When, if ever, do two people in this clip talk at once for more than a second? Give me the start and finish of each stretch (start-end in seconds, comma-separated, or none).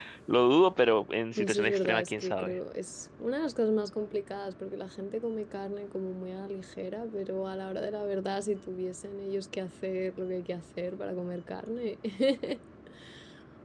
1.3-2.5